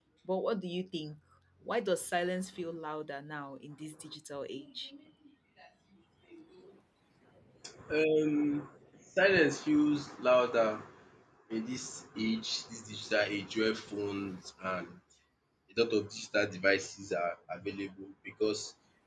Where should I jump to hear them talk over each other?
none

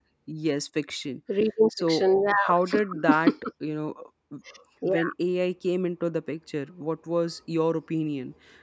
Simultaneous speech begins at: 2 s

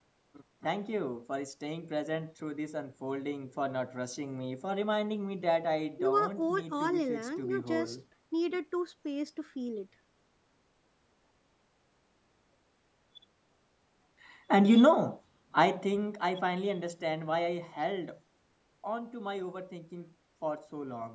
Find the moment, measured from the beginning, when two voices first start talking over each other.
6 s

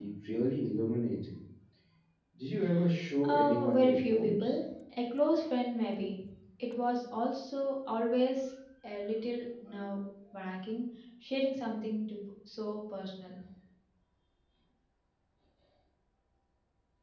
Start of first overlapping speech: 3 s

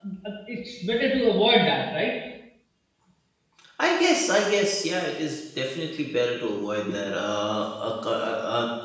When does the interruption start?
none

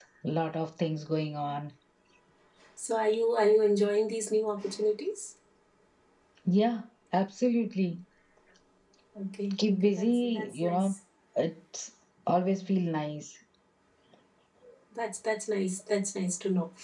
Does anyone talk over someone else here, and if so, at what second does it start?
10 s

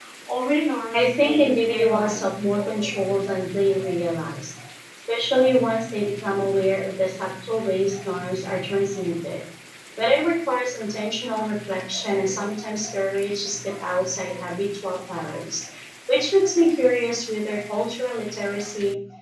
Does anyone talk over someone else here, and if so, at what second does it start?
1 s

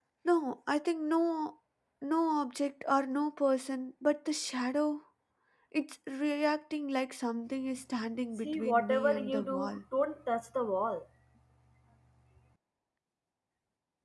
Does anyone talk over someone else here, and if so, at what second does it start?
8 s

